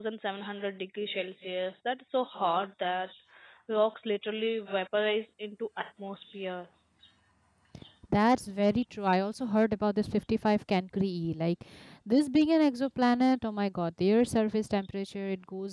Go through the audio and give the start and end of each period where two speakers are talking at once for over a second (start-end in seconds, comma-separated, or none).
none